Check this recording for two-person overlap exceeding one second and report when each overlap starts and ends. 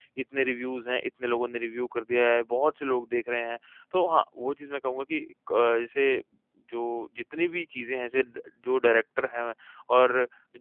none

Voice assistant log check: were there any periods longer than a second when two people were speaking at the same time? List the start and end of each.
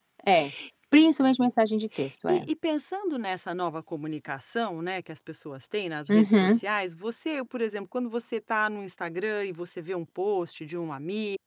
none

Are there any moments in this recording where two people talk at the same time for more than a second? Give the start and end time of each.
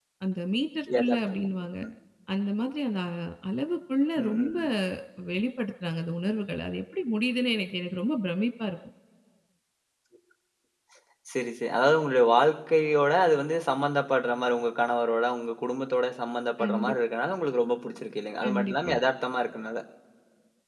none

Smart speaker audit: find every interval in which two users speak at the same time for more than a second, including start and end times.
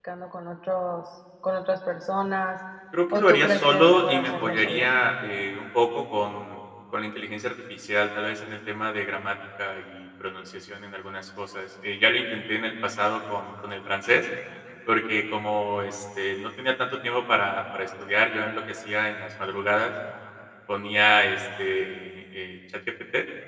3.1-4.9

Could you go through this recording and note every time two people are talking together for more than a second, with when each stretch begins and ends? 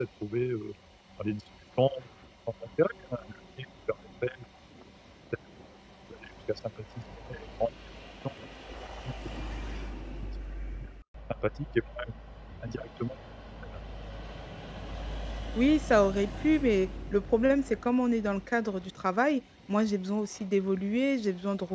none

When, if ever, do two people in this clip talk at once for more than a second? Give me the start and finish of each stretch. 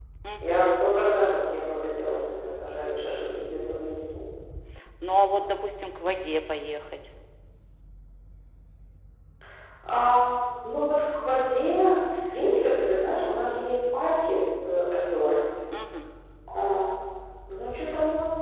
none

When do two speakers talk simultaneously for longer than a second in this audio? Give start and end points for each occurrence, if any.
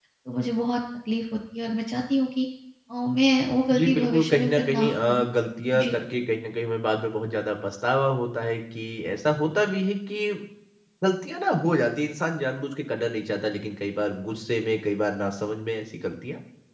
3.7-5.3

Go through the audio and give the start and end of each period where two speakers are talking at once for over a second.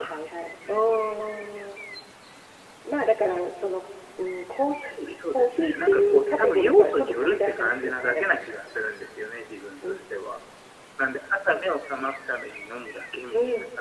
5.3-8.4

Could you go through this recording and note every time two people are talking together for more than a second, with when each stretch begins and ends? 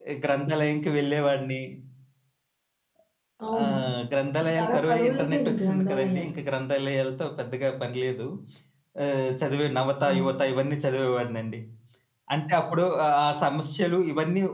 4.5-6.3

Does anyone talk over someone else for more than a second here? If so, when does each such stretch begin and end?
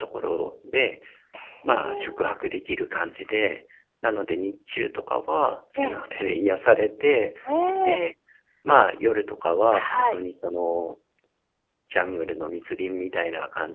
none

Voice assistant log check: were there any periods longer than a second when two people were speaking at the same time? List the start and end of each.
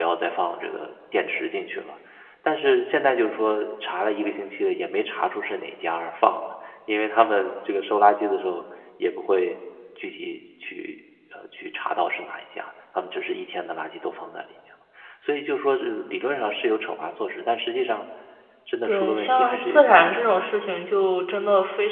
18.8-20.5

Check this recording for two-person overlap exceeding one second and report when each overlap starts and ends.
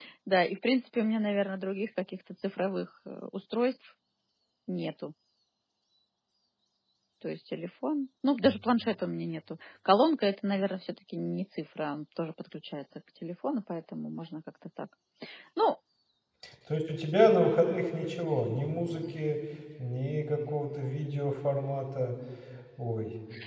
none

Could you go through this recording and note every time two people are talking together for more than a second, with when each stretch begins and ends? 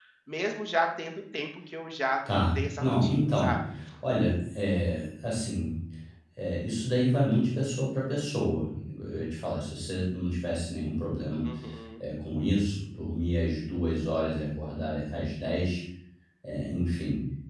2.4-3.6

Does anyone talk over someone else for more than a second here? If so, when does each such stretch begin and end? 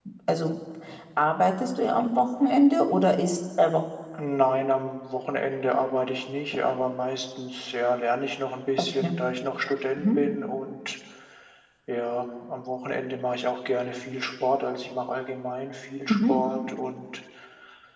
none

